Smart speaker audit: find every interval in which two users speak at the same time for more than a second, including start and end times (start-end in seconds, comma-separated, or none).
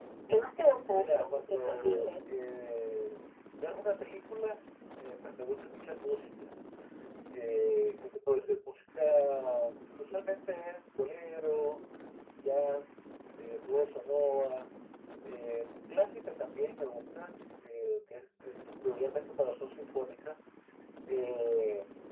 0.9-2.1